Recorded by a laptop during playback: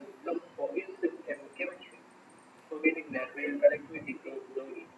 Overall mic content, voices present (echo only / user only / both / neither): echo only